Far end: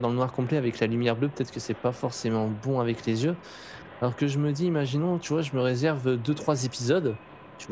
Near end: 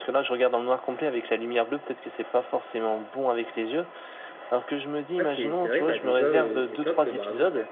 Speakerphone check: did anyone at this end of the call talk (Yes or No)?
Yes